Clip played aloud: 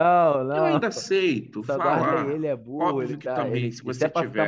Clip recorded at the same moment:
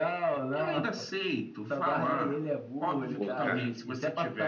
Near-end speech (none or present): present